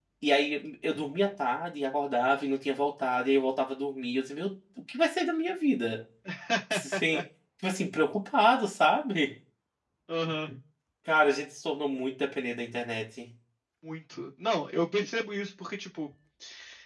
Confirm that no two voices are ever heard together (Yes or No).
Yes